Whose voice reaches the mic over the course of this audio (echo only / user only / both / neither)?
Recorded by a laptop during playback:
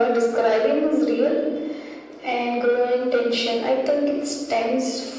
echo only